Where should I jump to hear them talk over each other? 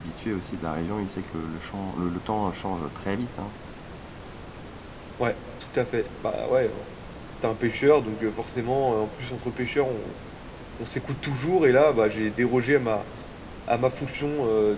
none

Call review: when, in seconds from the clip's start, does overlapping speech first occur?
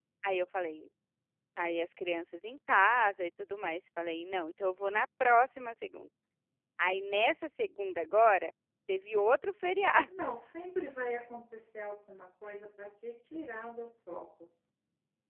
none

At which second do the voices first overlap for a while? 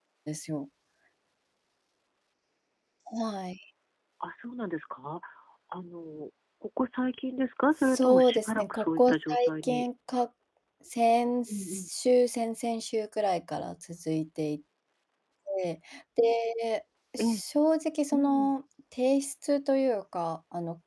7.8 s

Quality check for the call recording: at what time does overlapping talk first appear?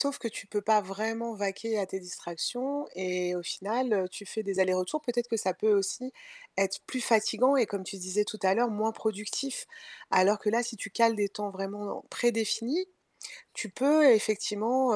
none

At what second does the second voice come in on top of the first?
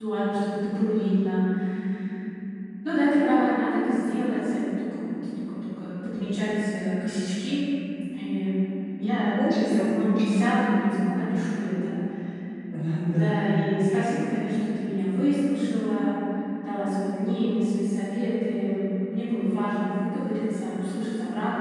9.0 s

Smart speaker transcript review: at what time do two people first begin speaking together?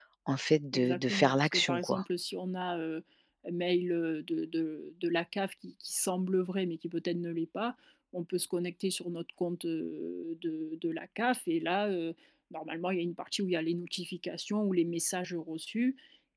0.7 s

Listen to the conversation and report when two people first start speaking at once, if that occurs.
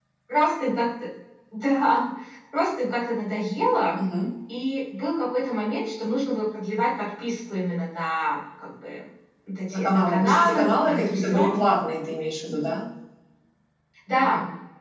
9.7 s

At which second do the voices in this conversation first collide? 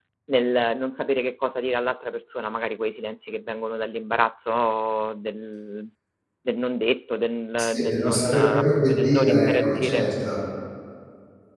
7.6 s

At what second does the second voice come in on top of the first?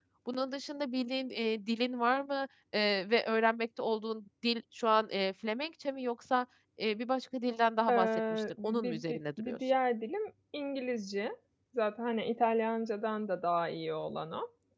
7.9 s

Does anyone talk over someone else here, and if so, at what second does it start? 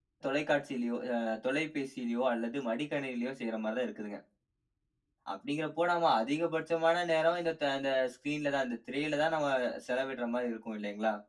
none

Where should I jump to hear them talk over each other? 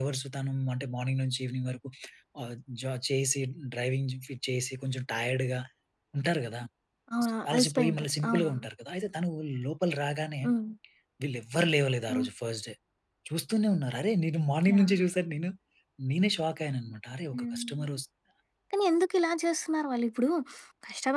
7.2 s

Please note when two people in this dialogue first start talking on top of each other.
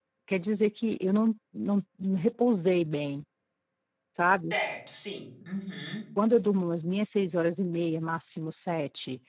none

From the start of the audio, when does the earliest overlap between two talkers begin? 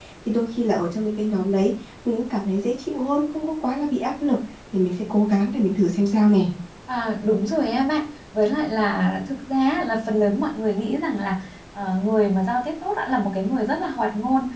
none

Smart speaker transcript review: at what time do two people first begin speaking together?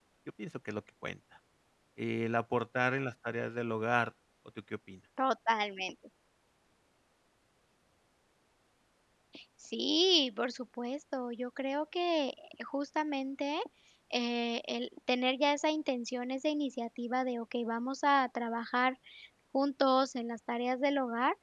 none

